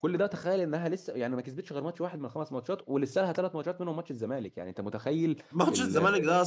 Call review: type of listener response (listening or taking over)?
taking over